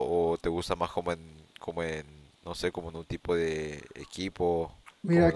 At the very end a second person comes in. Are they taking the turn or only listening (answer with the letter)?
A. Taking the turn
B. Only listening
A